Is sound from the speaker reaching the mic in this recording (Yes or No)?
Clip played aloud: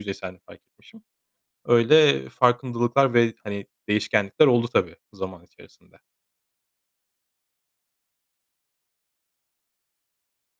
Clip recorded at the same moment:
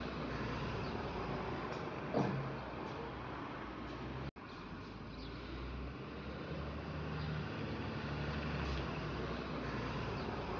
No